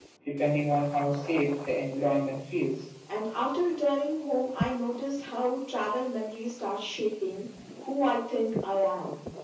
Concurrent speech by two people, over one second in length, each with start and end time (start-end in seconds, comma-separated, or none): none